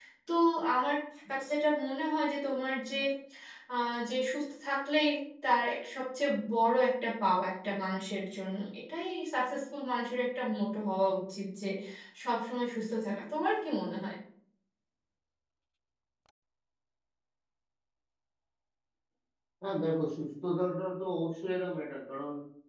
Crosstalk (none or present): none